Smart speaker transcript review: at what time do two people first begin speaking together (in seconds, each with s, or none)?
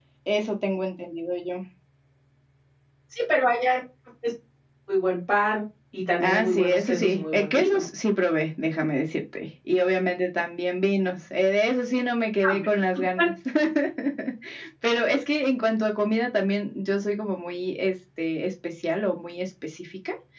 6.2 s